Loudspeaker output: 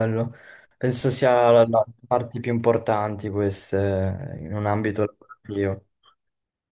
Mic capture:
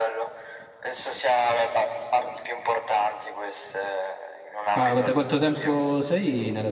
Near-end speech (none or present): present